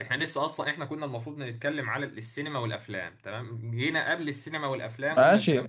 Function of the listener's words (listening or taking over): taking over